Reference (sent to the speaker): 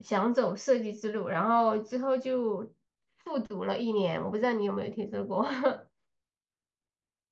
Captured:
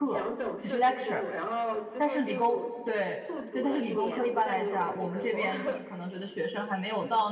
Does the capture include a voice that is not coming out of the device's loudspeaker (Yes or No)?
Yes